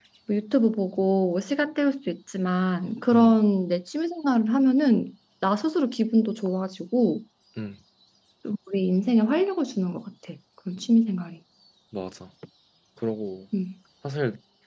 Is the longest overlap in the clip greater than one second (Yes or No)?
No